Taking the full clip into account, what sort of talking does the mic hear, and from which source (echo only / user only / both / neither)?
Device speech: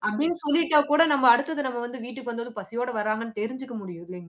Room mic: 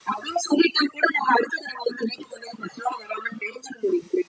echo only